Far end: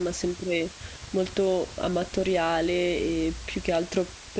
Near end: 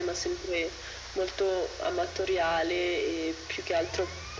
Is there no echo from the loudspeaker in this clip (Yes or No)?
No